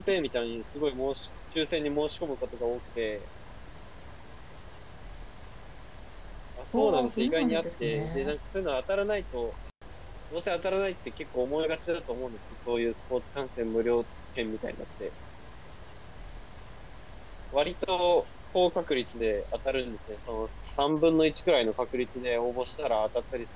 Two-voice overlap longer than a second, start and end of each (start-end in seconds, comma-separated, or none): 6.8-8.4